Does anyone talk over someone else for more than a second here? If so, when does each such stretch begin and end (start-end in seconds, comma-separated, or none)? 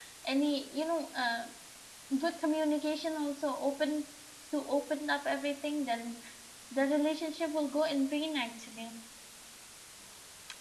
none